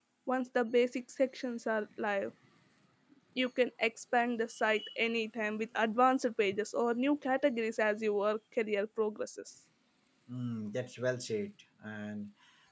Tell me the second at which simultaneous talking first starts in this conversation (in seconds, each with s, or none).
none